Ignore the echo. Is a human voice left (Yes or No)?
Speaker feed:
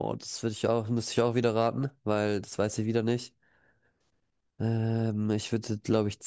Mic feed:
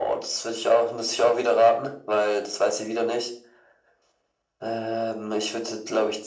No